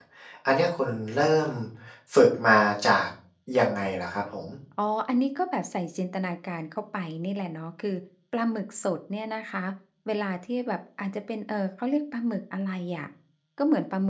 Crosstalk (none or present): none